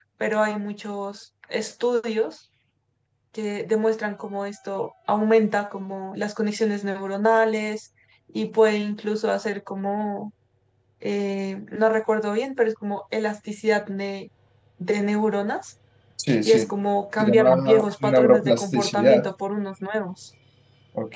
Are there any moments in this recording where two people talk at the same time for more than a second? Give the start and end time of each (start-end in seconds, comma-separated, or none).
17.2-19.3